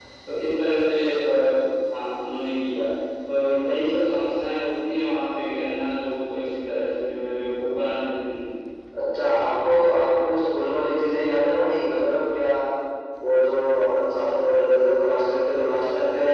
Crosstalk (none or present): none